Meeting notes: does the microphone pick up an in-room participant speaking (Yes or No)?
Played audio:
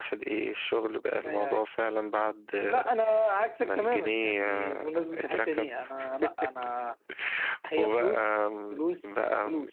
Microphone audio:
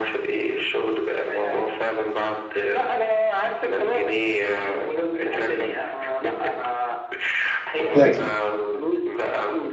Yes